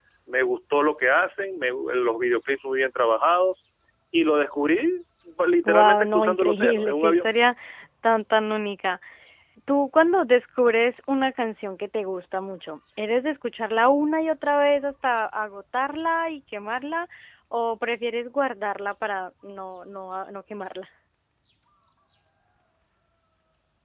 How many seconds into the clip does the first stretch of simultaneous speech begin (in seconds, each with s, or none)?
5.7 s